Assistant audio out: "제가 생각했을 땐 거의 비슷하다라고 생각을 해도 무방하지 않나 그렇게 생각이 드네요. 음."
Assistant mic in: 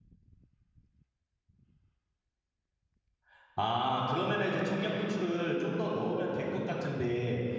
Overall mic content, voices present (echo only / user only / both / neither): user only